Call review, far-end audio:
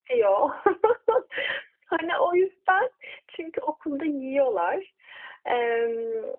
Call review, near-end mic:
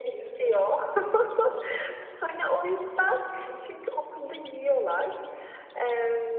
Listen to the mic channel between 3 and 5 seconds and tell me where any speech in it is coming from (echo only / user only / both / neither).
both